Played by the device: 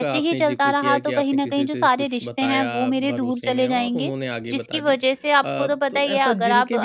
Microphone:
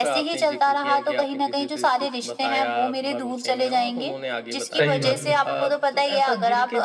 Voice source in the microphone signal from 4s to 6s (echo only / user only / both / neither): both